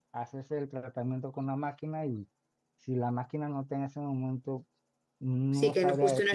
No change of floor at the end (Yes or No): No